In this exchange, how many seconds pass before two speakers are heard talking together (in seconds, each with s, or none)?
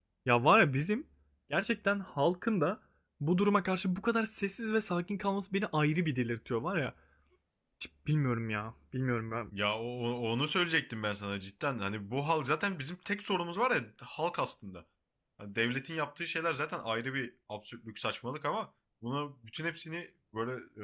none